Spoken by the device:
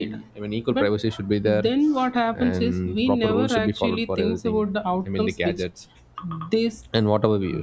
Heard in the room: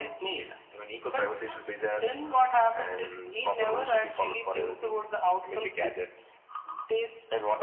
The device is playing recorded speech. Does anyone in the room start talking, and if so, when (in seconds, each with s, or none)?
none